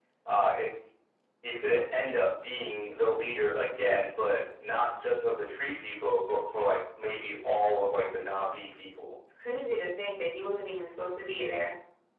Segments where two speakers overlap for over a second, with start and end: none

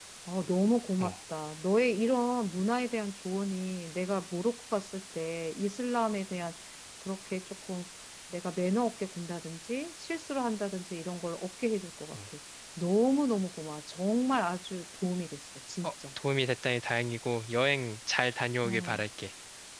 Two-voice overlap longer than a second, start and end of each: none

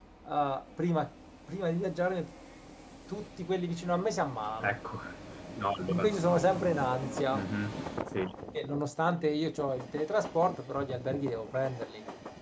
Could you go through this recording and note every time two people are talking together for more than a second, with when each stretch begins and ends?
none

